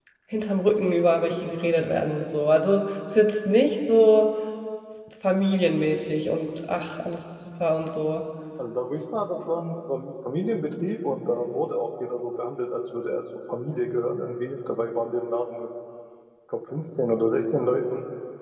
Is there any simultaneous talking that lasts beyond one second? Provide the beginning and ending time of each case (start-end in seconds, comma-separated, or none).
none